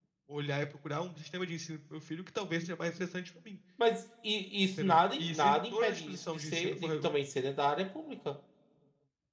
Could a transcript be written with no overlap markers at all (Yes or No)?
No